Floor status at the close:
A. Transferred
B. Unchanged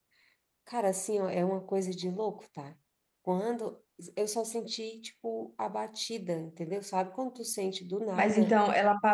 A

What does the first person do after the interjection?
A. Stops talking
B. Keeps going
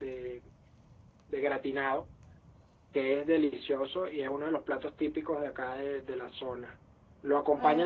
B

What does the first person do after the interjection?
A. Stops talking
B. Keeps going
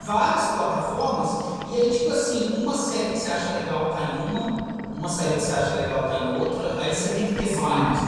B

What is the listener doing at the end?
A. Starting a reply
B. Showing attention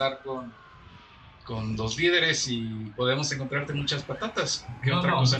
A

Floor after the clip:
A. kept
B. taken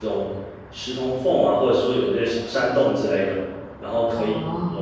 A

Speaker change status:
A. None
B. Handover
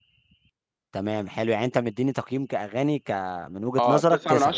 B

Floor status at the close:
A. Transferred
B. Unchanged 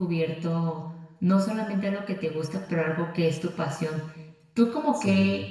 B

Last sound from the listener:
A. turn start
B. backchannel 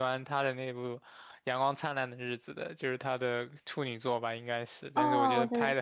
A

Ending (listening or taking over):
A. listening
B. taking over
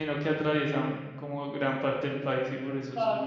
B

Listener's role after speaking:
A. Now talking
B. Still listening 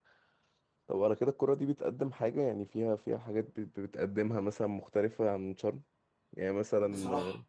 B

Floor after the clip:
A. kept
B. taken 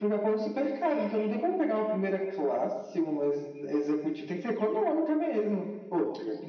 A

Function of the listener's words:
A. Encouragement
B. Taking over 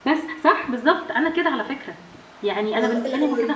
A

